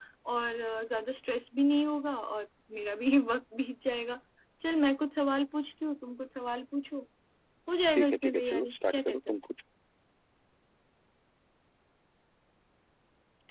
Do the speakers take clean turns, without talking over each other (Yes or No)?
No